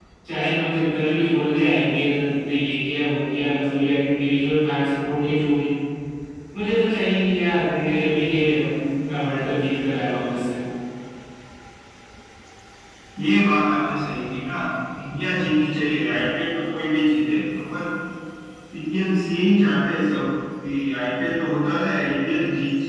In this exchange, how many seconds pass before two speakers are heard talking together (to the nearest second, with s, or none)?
none